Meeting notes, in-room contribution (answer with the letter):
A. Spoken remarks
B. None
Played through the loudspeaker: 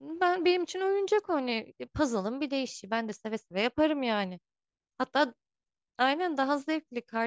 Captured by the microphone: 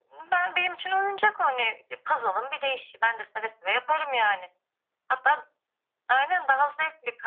B